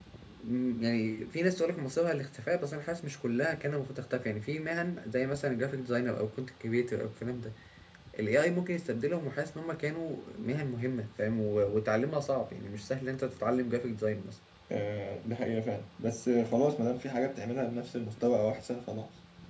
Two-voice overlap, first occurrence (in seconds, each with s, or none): none